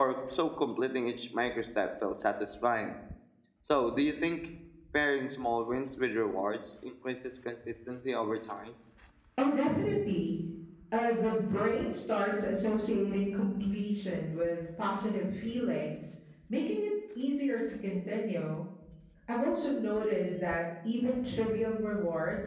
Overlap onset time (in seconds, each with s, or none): none